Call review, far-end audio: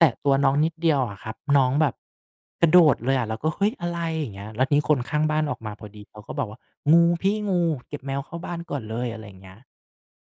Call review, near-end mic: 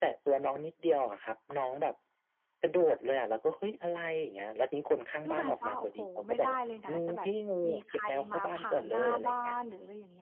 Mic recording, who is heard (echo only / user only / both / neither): both